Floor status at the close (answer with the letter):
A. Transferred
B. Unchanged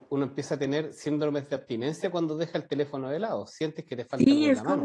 A